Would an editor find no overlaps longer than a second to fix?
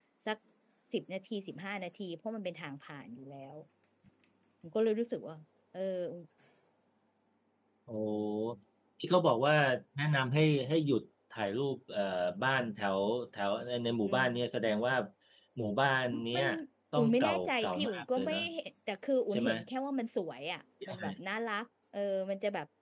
No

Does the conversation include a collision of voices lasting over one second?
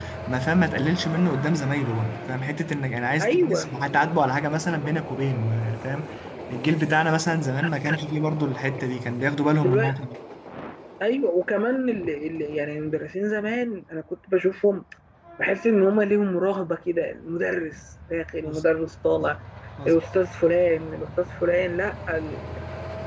No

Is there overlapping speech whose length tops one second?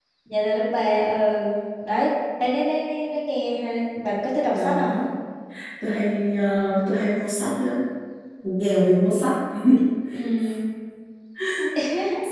No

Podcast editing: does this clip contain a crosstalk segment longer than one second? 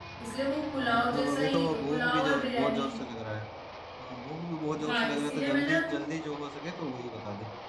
Yes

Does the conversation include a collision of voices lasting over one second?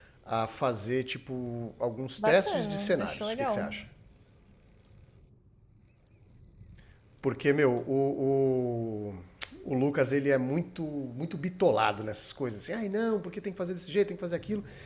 Yes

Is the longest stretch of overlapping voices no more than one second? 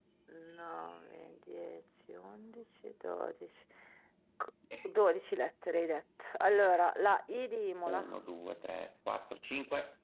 Yes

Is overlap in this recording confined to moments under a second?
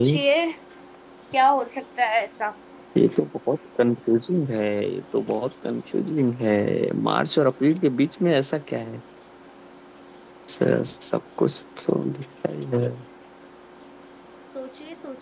Yes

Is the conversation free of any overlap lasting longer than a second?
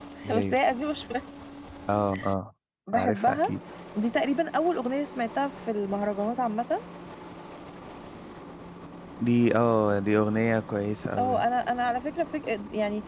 Yes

